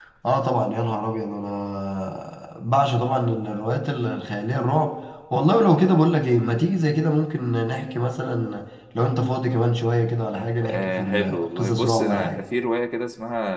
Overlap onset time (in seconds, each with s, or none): 10.6 s